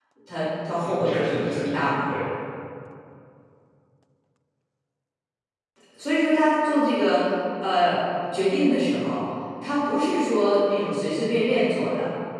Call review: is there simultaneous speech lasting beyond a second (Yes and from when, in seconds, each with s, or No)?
Yes, from 0.8 s